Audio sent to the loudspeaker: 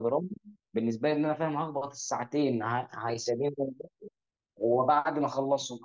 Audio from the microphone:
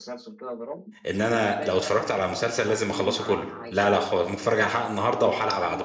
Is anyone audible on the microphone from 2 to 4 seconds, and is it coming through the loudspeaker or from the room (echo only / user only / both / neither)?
both